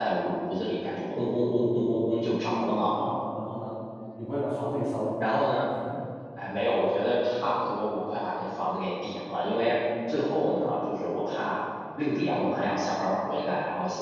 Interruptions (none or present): none